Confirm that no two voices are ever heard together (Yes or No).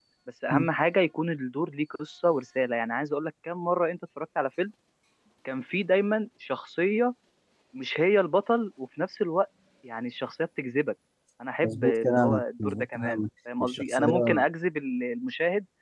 No